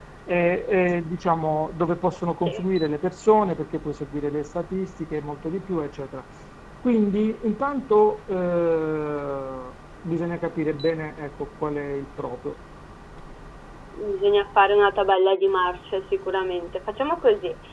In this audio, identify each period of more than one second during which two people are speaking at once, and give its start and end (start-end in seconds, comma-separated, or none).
none